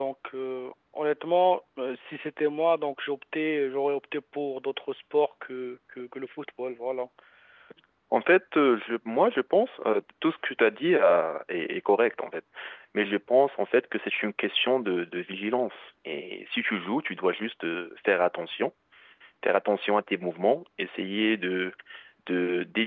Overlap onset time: none

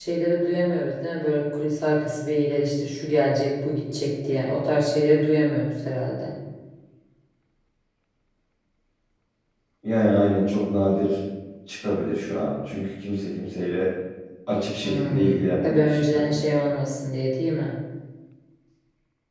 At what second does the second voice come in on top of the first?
14.8 s

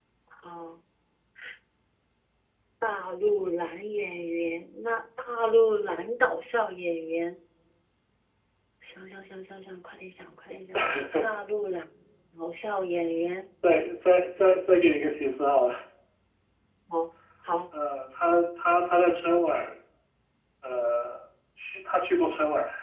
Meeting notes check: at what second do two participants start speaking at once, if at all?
none

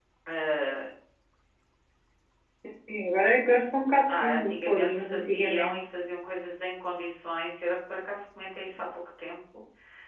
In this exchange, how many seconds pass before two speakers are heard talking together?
4.1 s

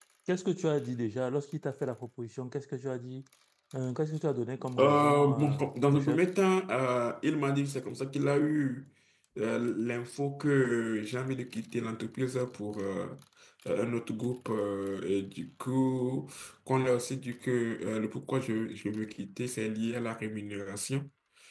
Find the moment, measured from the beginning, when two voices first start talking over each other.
4.8 s

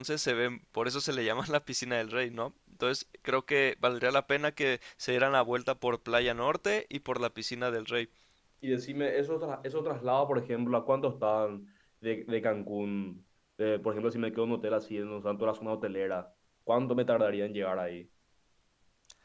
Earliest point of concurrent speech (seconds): none

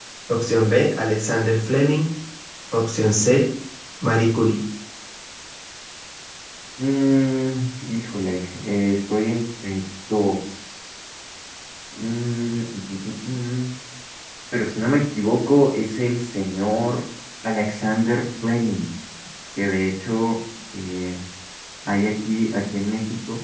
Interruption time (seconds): none

